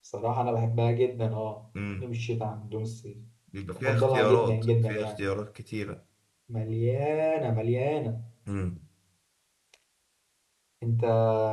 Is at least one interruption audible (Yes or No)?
Yes